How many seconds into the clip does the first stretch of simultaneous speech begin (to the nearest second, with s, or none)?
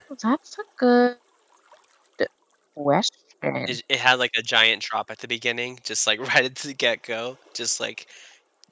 none